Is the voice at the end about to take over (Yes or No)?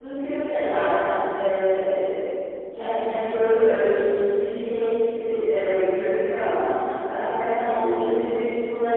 No